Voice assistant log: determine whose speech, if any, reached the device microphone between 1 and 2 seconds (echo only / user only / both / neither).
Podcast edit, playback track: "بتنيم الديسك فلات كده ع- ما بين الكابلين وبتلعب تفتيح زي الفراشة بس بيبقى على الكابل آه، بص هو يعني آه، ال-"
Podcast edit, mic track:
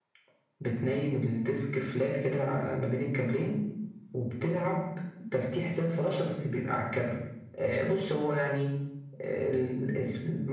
echo only